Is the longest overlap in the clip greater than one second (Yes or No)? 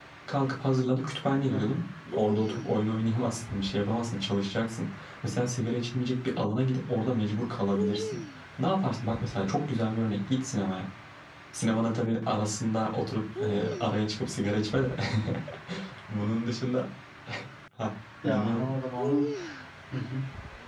No